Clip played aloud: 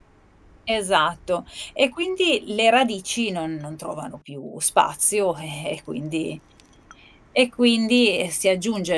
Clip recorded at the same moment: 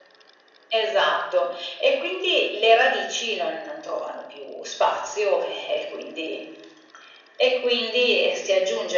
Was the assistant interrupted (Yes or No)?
No